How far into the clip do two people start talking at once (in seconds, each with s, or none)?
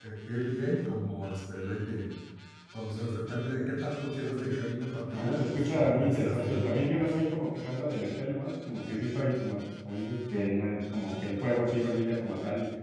5.1 s